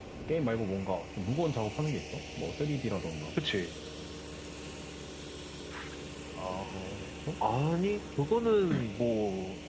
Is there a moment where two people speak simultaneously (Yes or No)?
No